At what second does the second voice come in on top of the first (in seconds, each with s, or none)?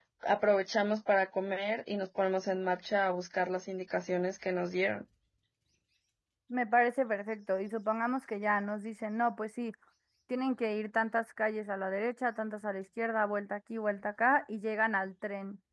none